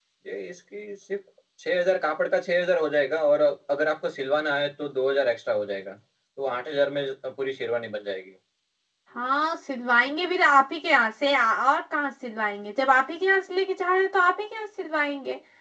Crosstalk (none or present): none